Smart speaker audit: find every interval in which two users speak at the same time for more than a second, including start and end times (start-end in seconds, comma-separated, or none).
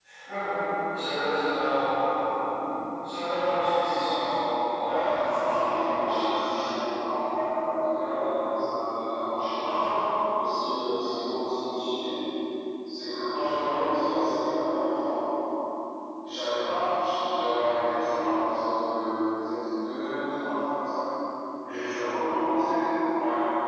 4.8-6.3